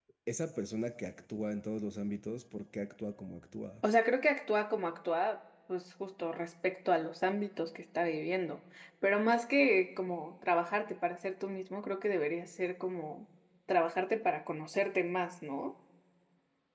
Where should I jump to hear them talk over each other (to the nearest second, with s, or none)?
none